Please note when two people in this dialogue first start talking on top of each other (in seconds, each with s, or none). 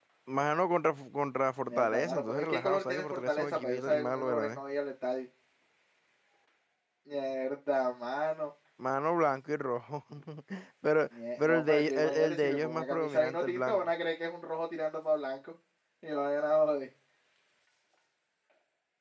1.7 s